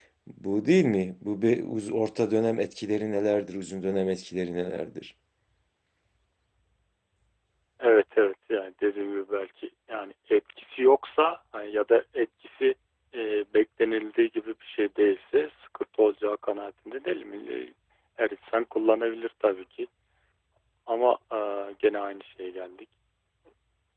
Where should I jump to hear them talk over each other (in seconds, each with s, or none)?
none